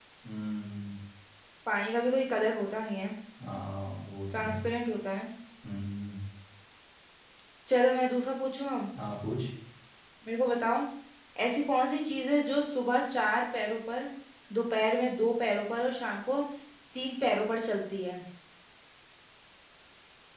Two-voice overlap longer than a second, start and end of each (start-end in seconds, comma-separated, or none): none